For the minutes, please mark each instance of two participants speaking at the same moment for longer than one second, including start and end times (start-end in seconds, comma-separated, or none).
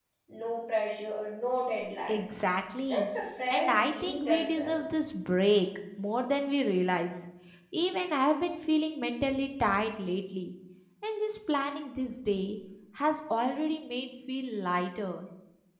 3.5-5.0